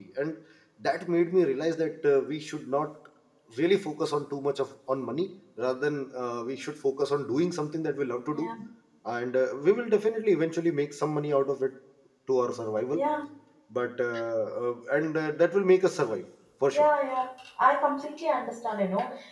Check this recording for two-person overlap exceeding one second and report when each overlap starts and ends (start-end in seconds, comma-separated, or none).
none